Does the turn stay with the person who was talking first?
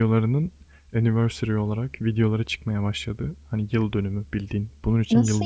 No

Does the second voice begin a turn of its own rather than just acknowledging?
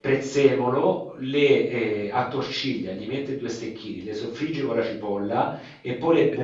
No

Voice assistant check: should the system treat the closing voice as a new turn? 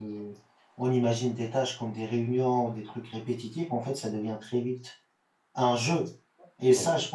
No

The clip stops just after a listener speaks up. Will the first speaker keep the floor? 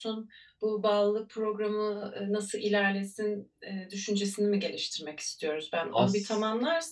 Yes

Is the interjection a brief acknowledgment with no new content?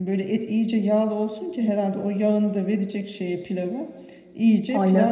Yes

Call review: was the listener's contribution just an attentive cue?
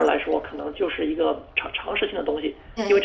Yes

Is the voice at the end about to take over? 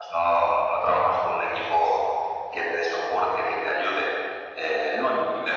No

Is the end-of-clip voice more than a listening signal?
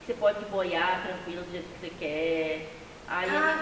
Yes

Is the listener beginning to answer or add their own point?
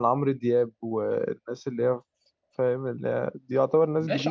Yes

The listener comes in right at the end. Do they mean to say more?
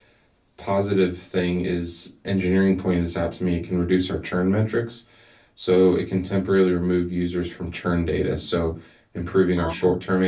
No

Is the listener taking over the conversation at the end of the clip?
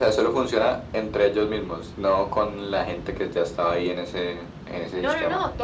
Yes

